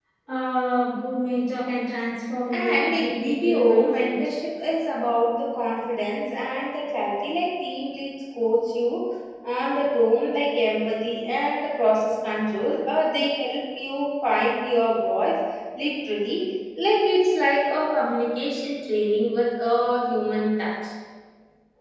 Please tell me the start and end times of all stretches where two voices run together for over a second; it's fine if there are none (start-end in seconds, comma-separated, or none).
2.6-4.2